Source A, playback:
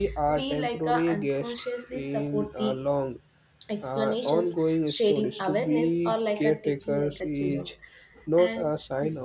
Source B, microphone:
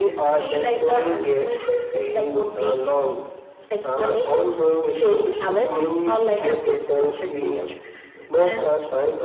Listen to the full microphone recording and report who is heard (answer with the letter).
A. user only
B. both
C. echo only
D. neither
C